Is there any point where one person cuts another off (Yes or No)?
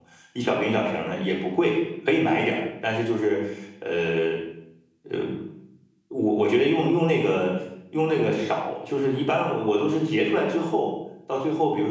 No